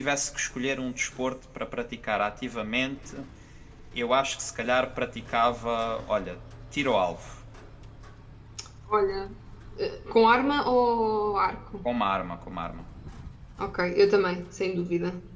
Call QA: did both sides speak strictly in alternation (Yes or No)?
Yes